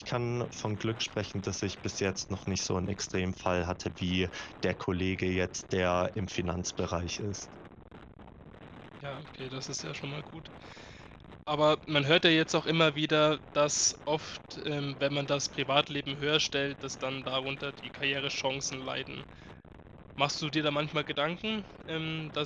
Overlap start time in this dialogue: none

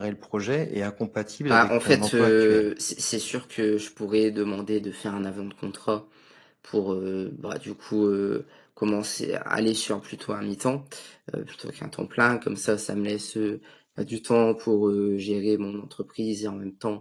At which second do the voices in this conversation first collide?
2 s

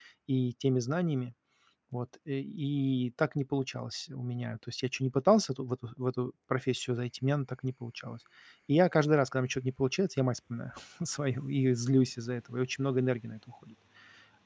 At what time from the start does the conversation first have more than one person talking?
none

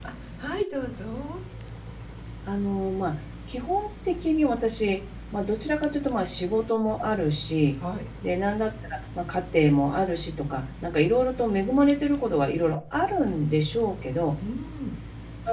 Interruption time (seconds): none

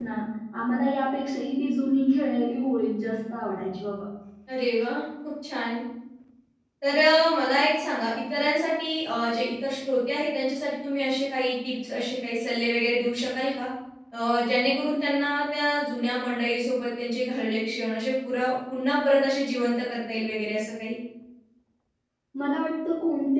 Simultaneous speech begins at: none

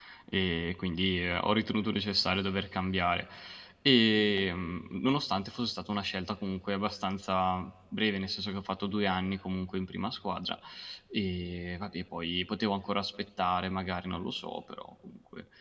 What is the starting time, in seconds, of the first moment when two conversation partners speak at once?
none

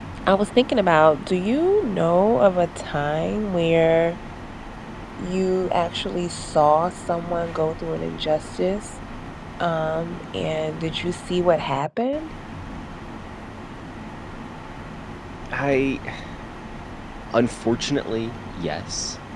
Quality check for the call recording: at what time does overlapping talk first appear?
none

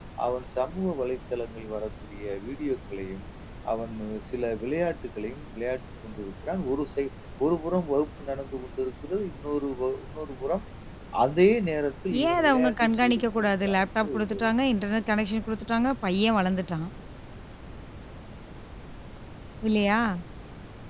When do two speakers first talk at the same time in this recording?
12 s

